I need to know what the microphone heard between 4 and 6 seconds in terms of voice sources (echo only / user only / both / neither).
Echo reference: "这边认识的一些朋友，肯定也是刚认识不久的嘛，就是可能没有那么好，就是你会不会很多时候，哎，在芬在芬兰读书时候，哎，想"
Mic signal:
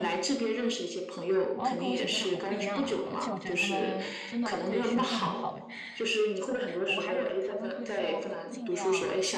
both